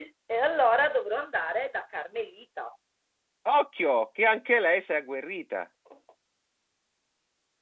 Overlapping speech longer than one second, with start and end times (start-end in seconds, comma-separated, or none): none